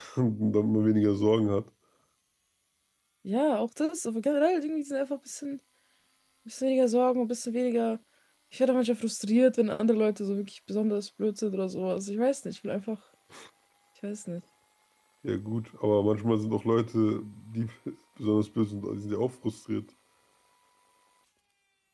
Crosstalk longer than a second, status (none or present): none